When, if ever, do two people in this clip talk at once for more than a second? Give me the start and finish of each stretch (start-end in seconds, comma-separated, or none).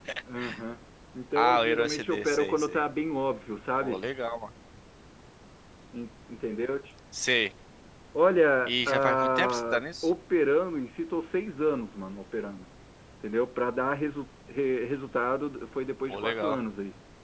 1.4-2.8, 8.7-10.1